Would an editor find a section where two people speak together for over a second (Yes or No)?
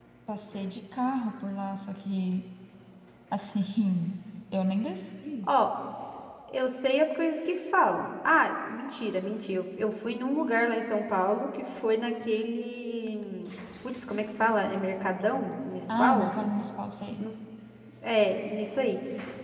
No